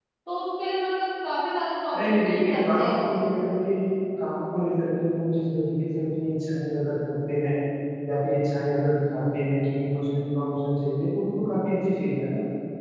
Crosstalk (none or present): present